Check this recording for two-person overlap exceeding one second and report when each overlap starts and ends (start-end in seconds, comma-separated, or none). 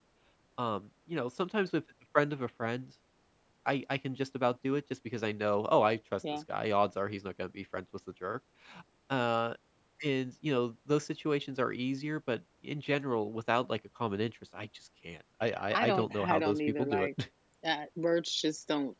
15.7-17.1